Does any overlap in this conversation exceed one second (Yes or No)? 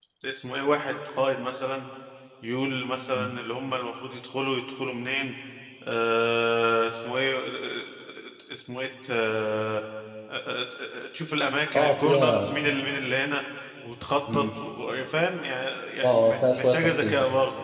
Yes